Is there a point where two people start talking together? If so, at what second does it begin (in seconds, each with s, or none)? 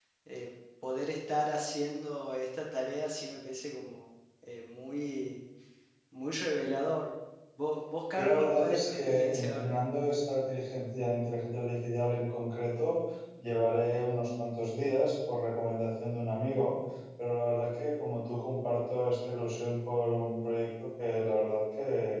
8.2 s